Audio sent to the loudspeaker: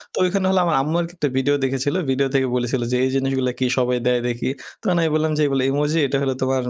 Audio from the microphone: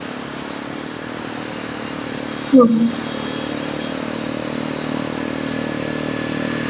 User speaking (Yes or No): Yes